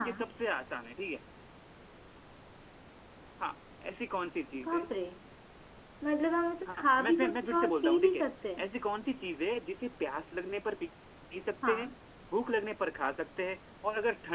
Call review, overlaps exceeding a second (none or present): present